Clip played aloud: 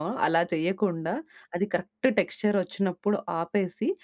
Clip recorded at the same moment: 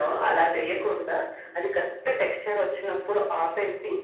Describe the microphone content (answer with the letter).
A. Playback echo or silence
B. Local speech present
A